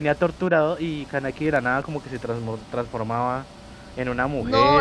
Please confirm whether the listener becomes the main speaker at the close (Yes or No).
Yes